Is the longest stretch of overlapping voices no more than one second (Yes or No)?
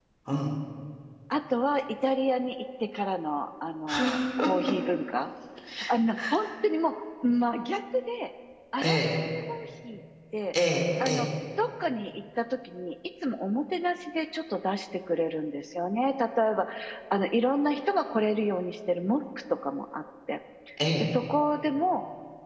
Yes